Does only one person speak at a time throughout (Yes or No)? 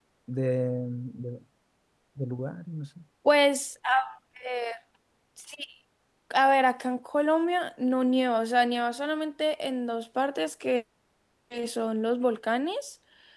Yes